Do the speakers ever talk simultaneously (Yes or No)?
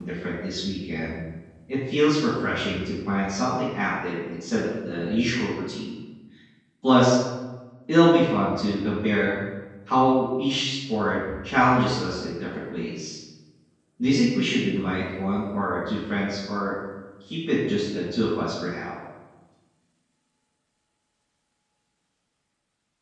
No